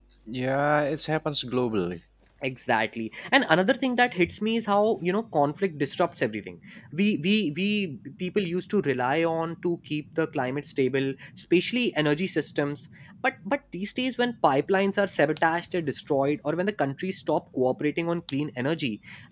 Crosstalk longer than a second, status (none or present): none